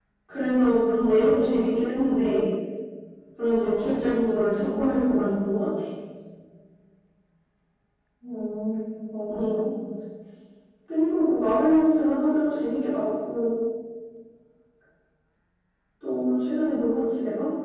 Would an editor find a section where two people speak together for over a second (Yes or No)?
No